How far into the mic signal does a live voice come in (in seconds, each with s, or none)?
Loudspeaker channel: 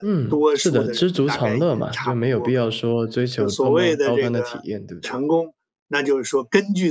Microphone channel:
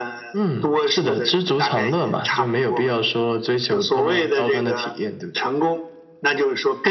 none